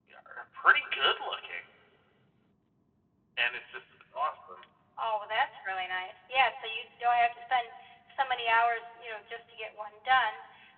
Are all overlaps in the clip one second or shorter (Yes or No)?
Yes